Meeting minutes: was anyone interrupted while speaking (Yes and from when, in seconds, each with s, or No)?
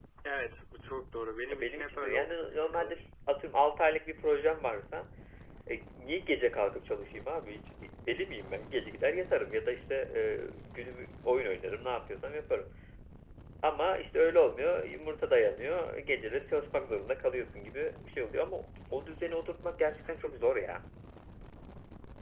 Yes, from 1.5 s